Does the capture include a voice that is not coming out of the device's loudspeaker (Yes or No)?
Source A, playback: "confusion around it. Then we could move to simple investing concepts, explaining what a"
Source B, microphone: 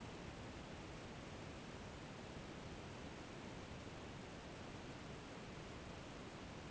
No